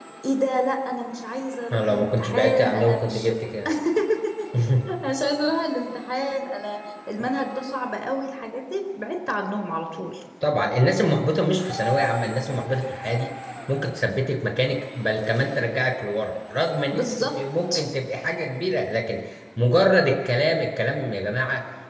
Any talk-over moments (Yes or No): Yes